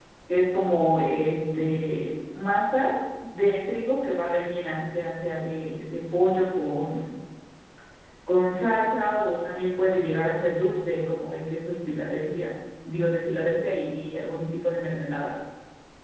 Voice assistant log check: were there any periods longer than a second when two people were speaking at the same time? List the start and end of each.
none

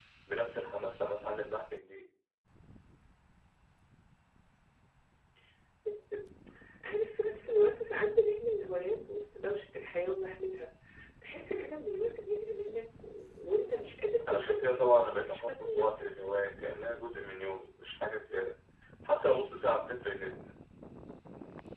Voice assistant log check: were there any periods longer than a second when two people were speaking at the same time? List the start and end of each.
14.3-16.1

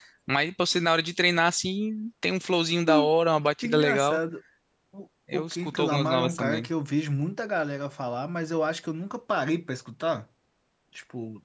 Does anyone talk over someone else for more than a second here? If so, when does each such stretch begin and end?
5.3-6.7

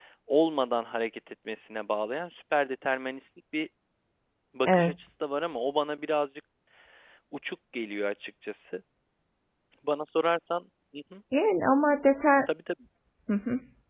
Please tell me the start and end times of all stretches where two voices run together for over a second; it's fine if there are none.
none

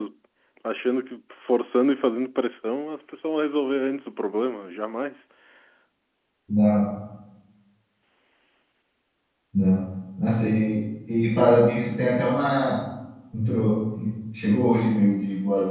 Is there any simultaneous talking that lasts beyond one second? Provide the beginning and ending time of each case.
none

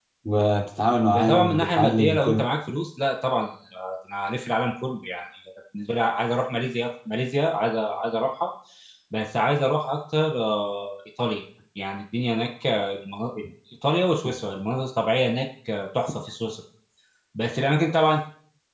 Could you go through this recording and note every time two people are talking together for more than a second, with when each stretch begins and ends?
1.1-2.5

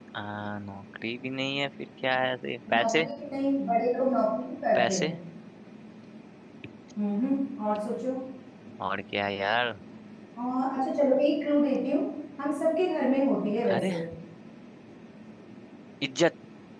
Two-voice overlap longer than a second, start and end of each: none

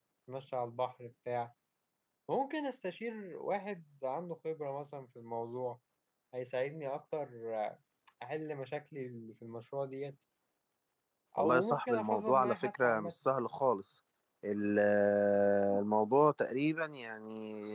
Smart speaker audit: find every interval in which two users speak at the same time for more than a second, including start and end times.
11.4-13.1

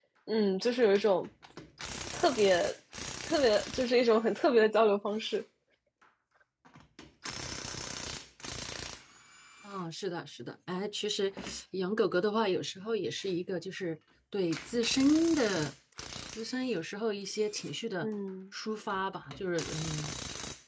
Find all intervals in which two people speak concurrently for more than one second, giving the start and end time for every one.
none

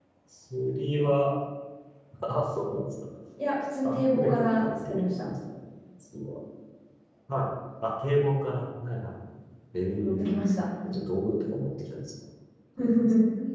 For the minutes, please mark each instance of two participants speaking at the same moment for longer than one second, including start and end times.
3.9-5.3

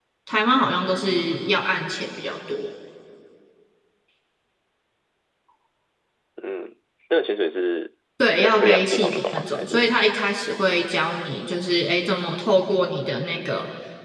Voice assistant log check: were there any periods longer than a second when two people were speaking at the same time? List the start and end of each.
8.3-9.9

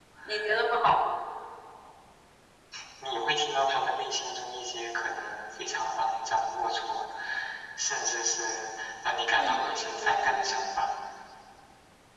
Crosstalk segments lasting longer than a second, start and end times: 9.3-10.8

